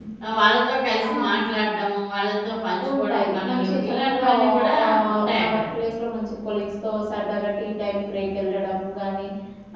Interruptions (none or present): present